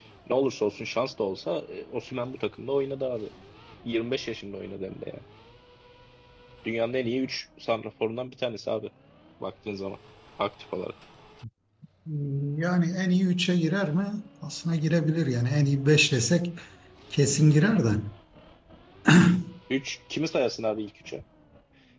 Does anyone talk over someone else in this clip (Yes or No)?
No